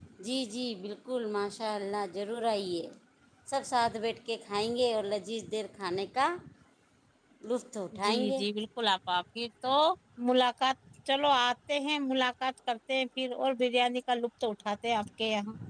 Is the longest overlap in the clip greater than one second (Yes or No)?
No